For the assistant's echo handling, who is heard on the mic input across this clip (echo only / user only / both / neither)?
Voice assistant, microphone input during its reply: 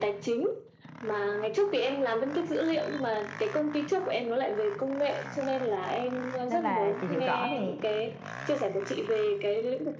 both